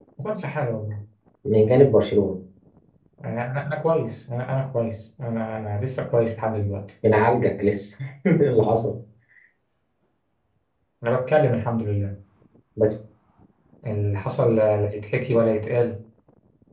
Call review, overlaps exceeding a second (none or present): none